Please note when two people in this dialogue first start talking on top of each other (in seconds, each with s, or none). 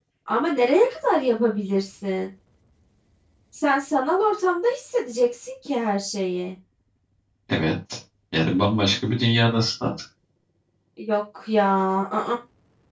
none